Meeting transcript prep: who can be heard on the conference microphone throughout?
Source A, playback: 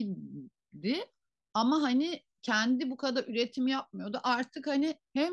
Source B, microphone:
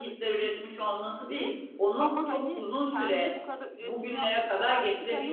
both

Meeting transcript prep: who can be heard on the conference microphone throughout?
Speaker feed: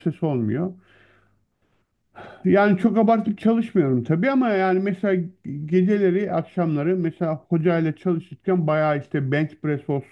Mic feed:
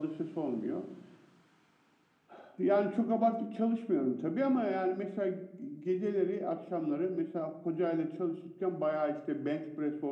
echo only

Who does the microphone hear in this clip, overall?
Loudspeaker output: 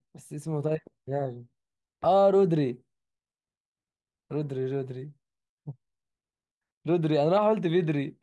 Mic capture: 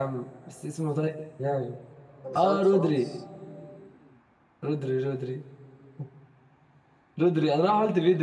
both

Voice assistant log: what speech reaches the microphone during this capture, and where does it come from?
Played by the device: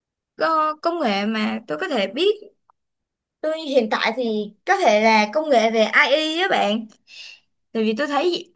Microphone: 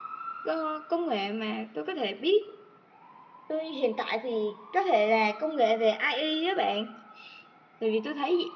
echo only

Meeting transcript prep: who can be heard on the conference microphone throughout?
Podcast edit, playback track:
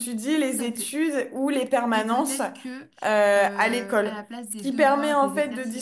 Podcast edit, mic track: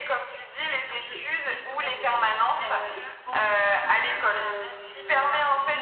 both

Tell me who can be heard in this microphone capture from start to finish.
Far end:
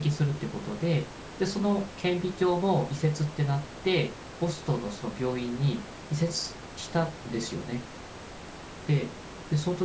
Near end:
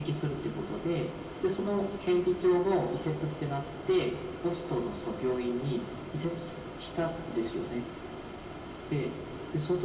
echo only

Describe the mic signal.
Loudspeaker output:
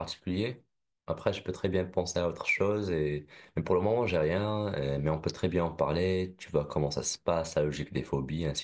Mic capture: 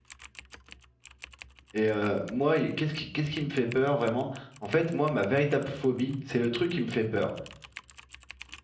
user only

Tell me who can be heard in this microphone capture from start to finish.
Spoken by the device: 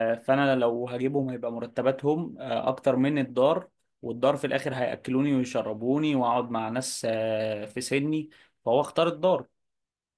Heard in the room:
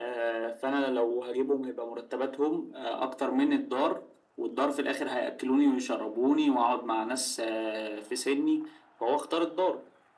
echo only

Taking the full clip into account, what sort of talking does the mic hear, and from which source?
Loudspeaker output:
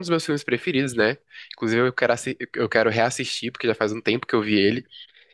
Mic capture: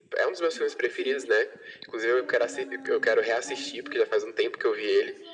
both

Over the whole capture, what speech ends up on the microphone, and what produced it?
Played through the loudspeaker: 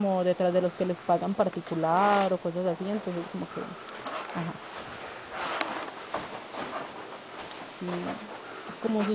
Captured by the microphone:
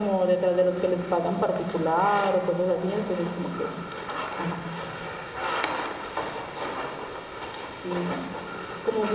echo only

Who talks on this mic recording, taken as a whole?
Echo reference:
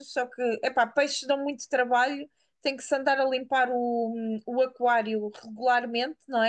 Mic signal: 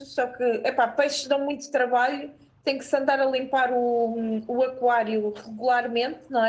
echo only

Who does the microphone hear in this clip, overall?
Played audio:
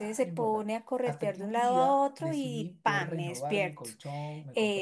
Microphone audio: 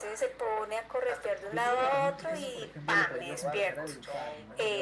both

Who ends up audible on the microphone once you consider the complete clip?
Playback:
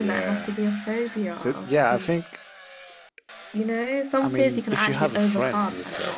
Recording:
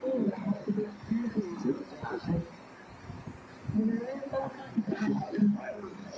echo only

